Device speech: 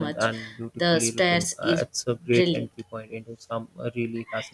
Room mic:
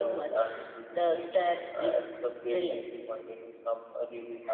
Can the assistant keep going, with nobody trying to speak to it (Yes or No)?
Yes